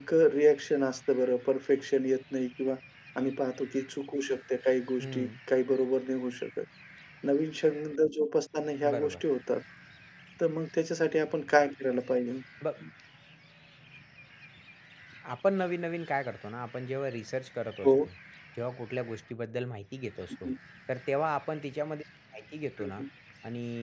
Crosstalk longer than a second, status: none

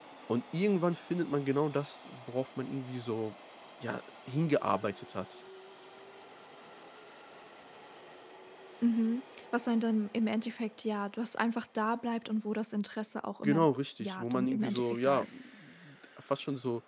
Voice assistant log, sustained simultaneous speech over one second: present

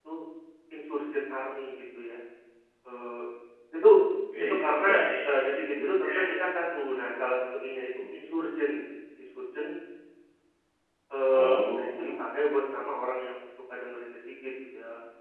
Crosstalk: present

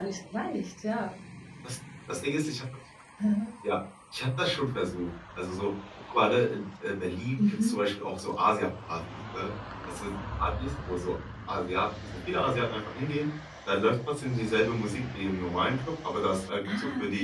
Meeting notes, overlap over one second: none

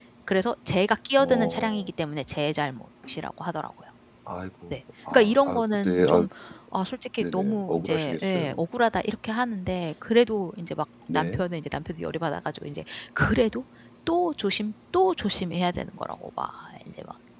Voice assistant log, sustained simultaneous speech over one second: present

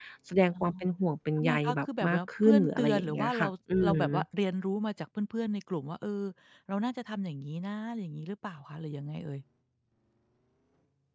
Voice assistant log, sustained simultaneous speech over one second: present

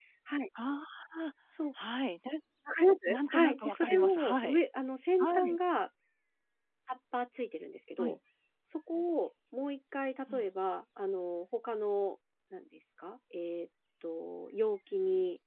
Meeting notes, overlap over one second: present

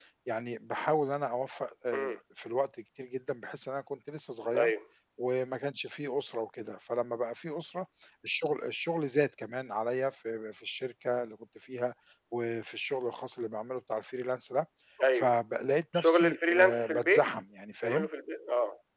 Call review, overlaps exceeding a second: present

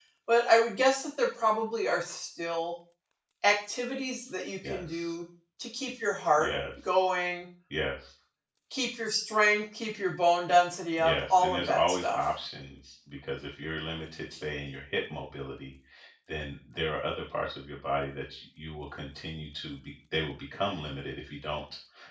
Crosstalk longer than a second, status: present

